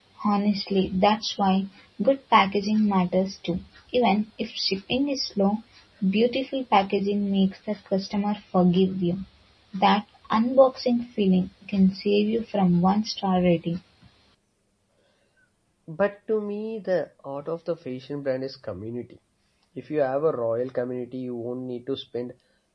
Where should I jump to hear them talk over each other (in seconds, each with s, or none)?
none